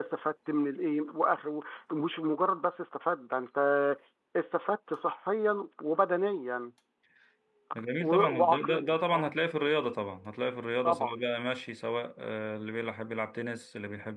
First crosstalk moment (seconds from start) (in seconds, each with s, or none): 8.0 s